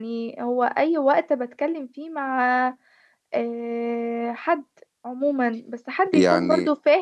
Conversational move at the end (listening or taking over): listening